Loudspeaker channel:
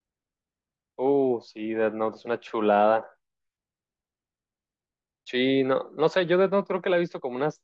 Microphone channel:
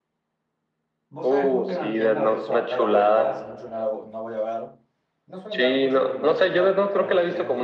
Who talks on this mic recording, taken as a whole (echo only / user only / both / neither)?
both